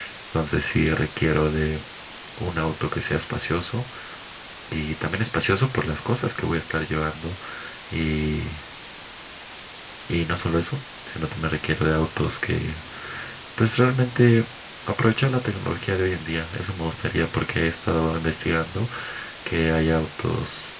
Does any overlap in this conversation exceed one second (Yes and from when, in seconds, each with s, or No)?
No